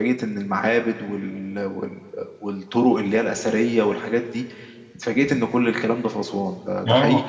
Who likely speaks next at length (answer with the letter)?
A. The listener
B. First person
A